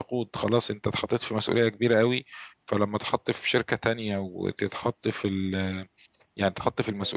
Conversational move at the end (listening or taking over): listening